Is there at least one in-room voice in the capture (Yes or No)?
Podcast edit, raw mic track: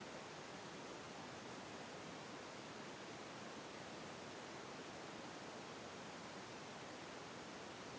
No